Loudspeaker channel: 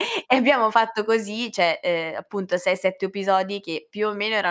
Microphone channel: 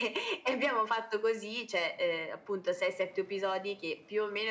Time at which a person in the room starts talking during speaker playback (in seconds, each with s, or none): none